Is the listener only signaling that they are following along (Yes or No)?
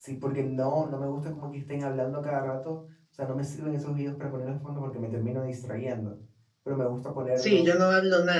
No